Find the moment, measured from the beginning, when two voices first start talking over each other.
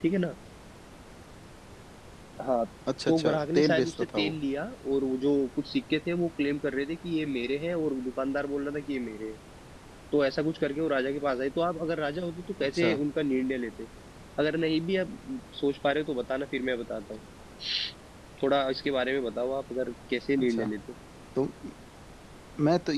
3 s

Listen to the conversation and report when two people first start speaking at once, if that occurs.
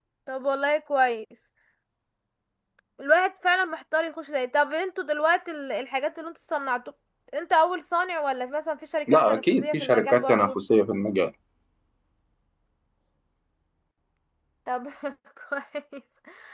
9 s

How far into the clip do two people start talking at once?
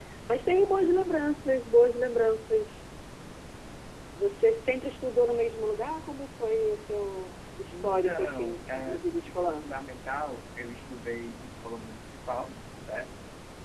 8 s

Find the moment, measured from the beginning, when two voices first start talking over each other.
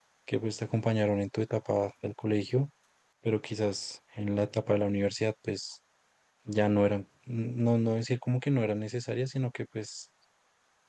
none

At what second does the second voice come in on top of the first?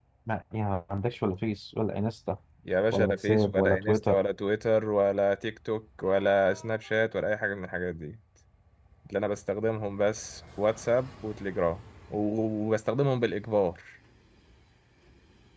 3 s

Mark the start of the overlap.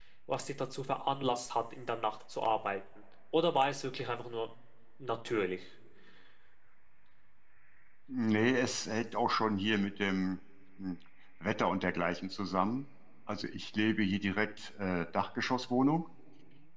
none

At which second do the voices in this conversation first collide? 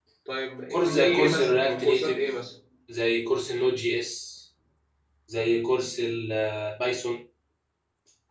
1 s

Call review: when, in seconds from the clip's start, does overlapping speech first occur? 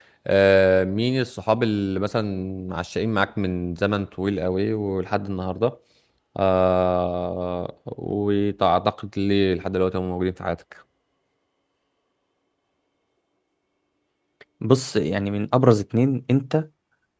none

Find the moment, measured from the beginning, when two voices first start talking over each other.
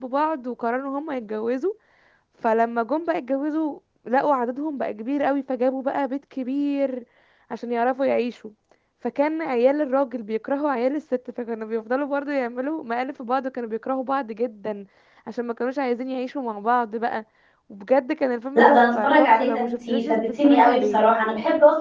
19 s

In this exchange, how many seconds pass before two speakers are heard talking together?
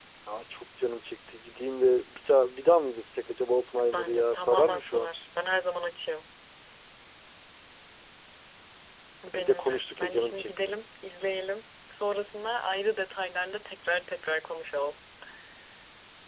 4 s

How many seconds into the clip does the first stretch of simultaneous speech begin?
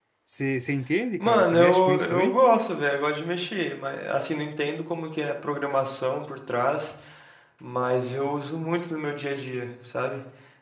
1 s

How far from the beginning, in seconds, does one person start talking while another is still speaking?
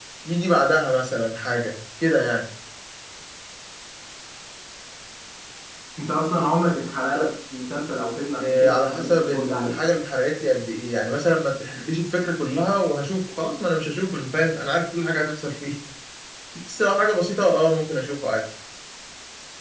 8 s

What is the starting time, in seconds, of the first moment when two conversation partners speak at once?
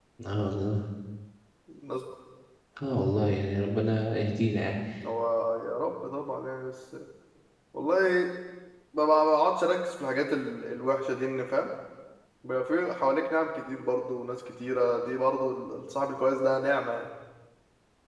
none

